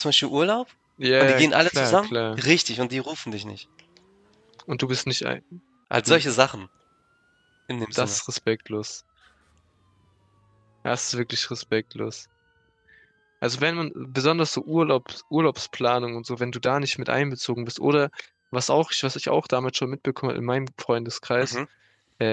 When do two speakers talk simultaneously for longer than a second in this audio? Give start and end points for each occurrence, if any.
1.2-2.4

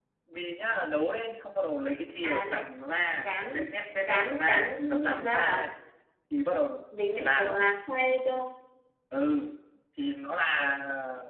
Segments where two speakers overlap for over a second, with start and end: 4.1-5.7

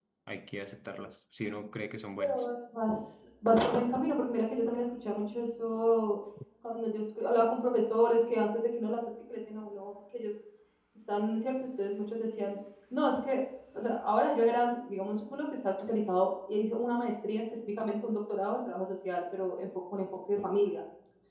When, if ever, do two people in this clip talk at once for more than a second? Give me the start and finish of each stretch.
none

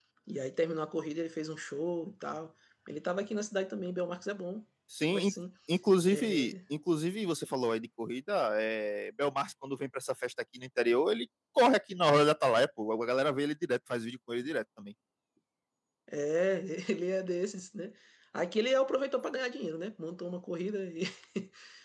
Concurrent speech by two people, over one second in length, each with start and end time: none

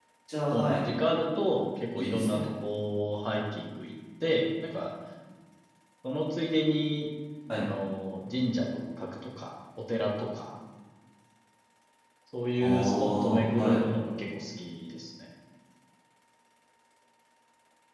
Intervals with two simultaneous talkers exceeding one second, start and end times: 12.6-13.8

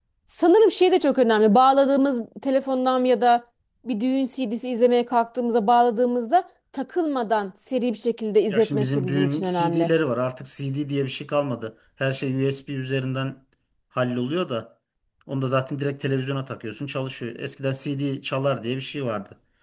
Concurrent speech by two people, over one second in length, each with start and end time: 8.5-9.9

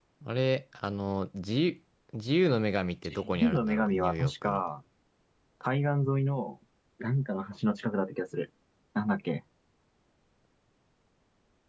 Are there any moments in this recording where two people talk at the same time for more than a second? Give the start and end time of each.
3.1-4.6

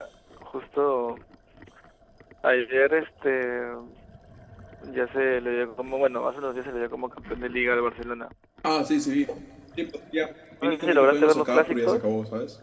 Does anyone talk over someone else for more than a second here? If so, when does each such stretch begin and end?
10.7-12.0

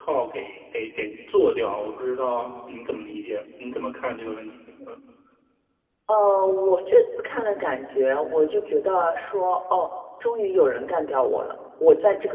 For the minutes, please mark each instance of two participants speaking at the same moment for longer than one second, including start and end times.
none

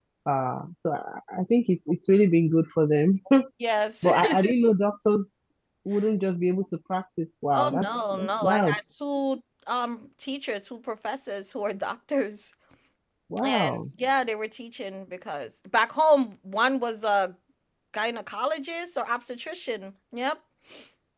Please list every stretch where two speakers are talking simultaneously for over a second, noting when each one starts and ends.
7.5-8.8

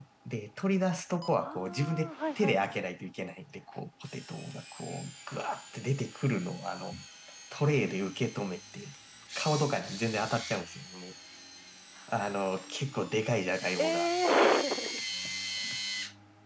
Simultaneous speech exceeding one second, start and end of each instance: 1.4-2.8

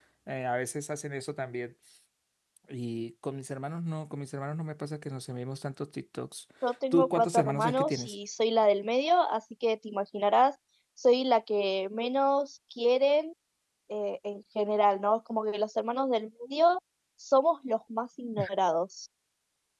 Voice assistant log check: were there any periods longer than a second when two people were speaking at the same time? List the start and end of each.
6.9-8.2

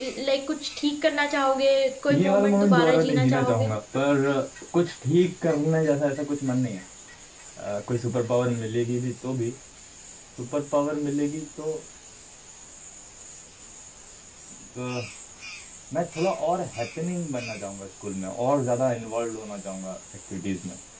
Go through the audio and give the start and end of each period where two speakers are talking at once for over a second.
2.1-3.7

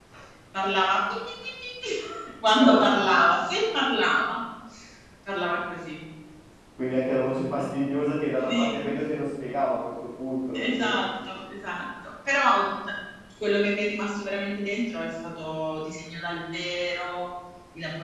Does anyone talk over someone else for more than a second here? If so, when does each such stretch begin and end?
none

